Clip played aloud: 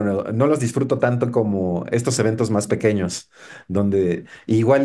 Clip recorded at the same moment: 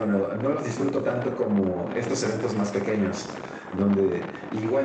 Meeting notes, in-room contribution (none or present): none